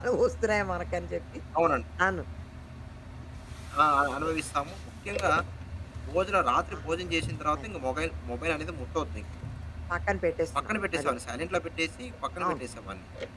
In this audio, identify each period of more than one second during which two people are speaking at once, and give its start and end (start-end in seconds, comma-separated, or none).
none